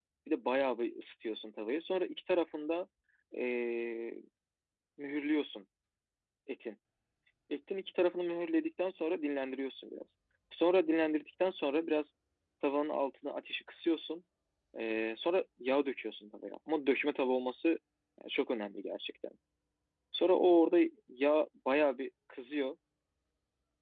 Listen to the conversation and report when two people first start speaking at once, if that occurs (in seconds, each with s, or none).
none